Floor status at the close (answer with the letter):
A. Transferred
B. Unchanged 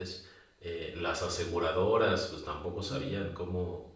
B